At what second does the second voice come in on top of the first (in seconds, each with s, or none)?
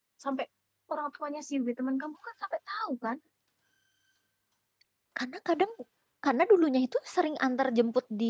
none